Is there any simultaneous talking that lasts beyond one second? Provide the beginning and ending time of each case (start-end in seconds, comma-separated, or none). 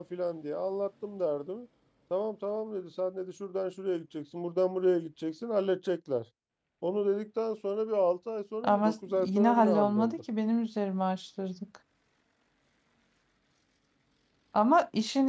8.6-10.2